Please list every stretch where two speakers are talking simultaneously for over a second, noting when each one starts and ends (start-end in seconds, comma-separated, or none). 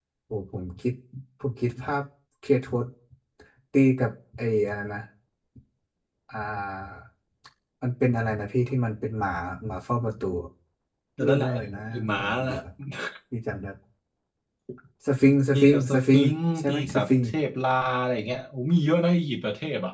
11.2-12.5, 15.5-17.3